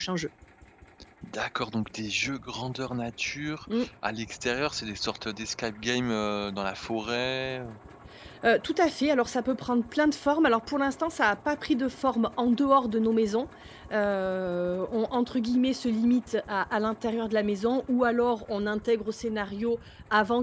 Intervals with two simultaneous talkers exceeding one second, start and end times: none

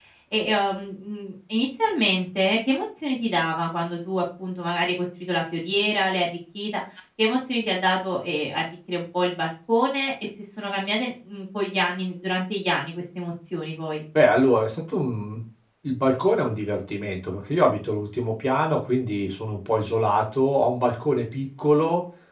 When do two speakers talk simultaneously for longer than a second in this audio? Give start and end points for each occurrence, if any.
none

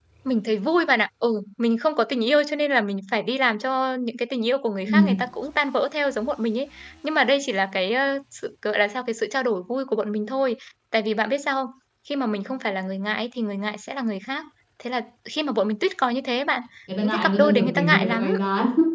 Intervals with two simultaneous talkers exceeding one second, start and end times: 17.0-18.3

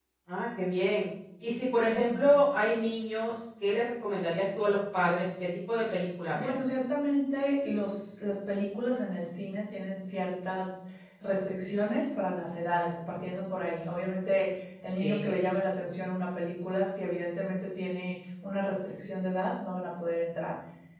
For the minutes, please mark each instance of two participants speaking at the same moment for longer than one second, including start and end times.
none

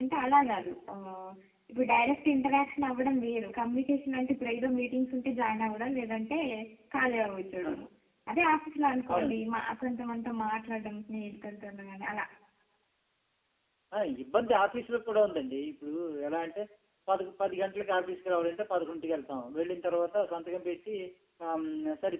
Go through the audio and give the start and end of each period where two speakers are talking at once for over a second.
none

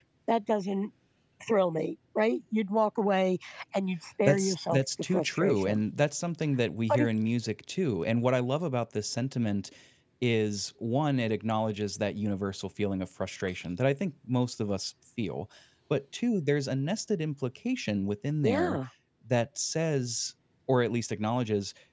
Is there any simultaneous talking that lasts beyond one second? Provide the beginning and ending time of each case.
4.2-5.8

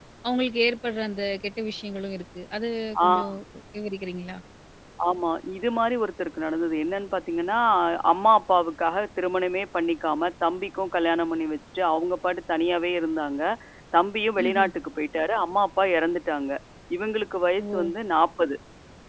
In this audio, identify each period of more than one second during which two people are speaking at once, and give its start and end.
none

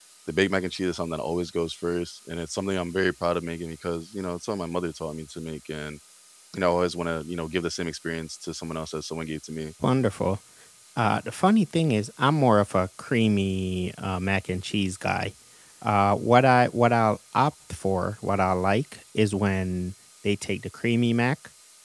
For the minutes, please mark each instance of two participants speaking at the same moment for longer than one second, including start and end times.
none

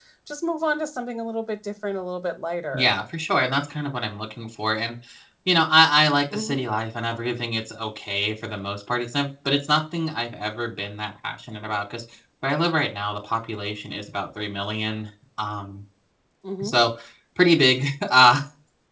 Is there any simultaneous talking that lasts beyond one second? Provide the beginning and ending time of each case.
none

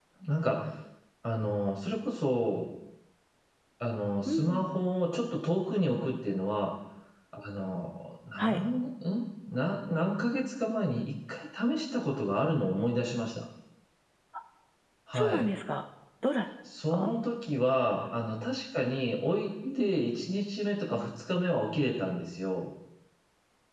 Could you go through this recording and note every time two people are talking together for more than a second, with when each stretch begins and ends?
none

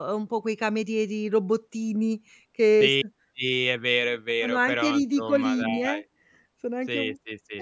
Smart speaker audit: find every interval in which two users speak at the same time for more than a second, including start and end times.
4.4-6.0

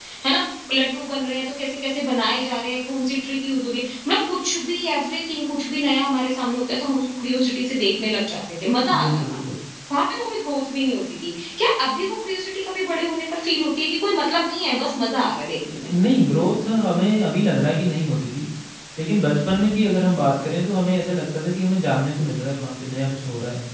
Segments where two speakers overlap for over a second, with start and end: none

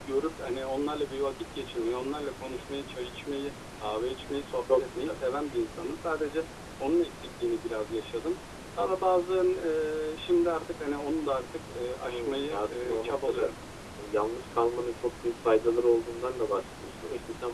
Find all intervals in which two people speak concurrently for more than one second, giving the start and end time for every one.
12.1-13.5

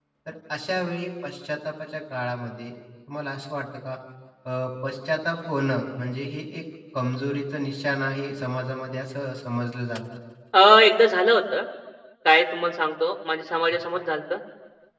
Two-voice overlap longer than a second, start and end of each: none

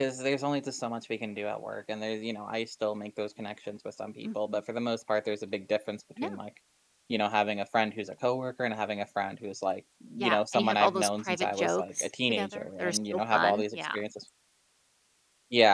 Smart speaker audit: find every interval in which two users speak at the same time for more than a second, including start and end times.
10.2-14.0

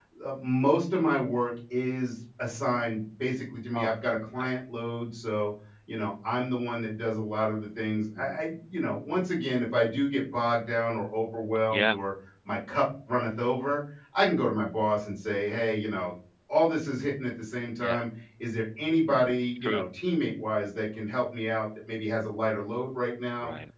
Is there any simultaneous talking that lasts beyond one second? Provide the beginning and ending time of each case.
none

